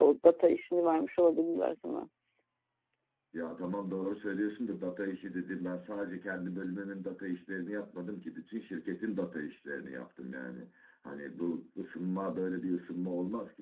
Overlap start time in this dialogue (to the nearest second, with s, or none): none